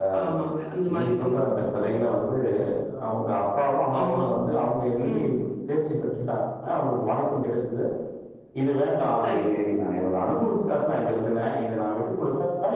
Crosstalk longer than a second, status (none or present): none